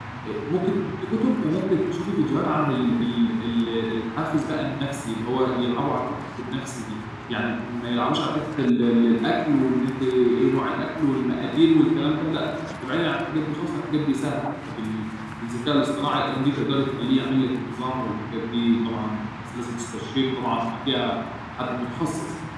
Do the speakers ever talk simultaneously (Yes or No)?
No